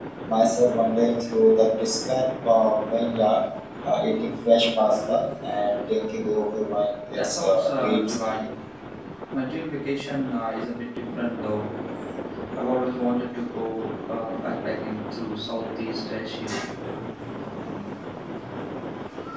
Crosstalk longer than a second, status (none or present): present